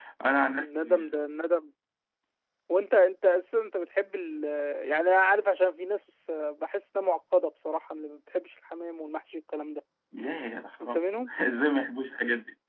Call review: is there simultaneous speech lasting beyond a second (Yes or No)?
No